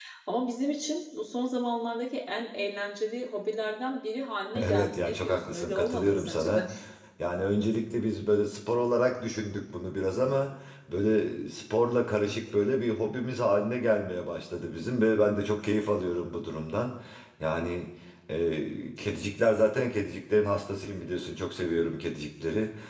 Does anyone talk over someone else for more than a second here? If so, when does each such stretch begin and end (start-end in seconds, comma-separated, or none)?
4.6-6.7